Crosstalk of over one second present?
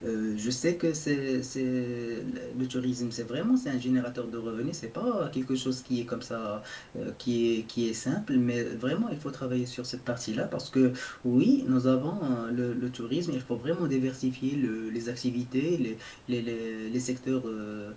No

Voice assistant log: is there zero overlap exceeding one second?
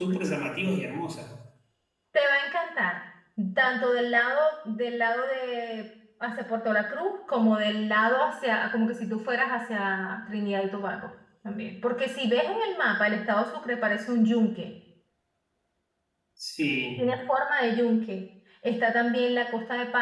Yes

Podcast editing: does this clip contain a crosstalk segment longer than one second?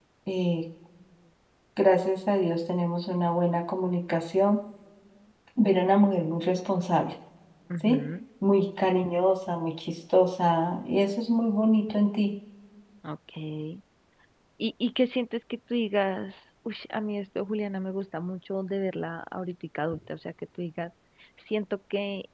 No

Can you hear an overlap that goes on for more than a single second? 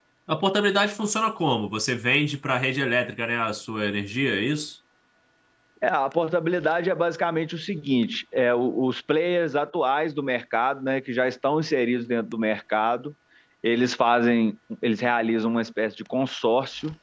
No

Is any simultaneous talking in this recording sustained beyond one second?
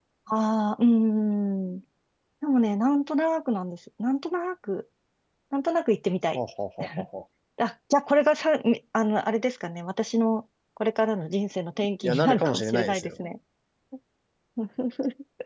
Yes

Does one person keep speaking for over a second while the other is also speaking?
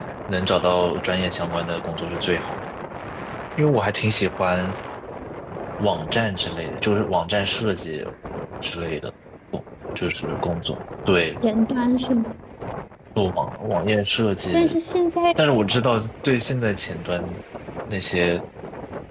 No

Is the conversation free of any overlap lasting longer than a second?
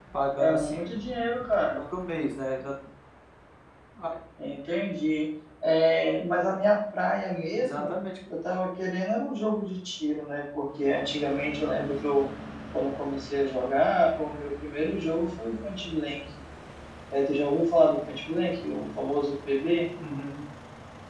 Yes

